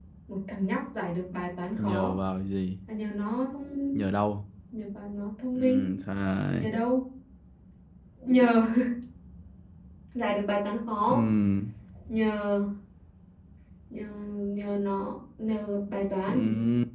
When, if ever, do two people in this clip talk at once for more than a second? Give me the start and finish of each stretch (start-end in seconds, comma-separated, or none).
none